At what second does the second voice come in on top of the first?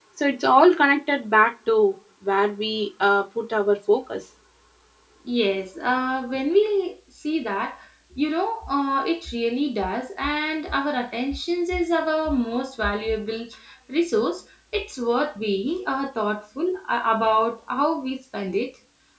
none

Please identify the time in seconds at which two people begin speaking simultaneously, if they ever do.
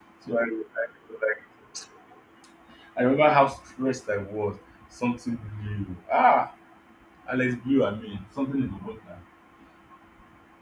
none

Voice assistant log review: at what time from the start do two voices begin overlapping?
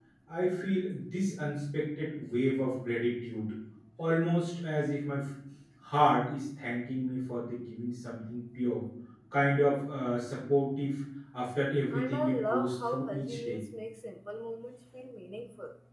12 s

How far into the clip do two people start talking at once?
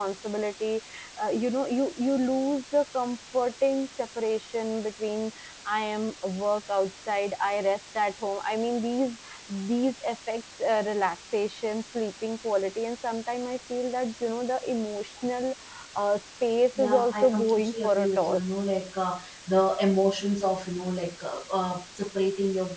17 s

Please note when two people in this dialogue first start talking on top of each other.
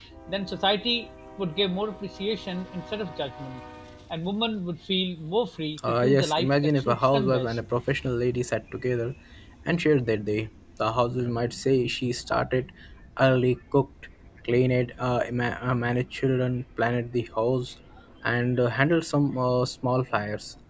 6 s

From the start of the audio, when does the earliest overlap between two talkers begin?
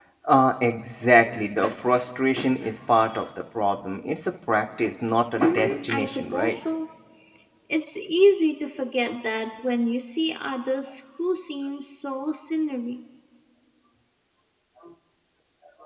5 s

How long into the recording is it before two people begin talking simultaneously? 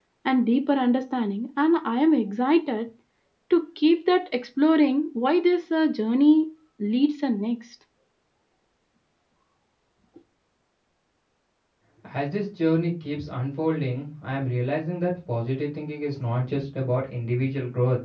none

